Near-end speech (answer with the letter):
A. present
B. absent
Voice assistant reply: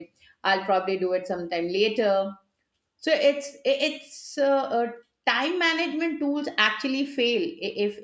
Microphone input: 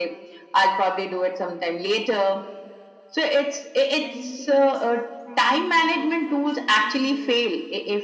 A